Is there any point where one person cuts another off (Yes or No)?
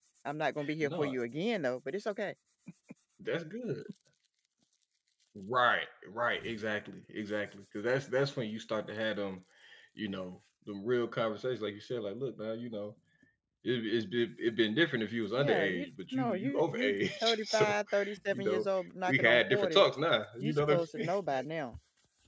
Yes